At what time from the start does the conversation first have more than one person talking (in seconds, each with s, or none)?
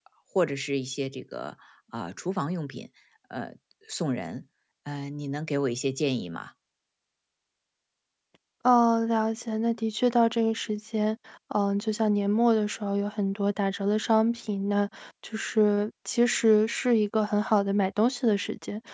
none